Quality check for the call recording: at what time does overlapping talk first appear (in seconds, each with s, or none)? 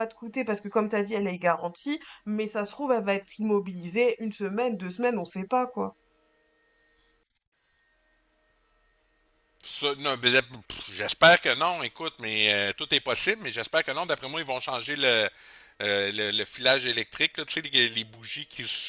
none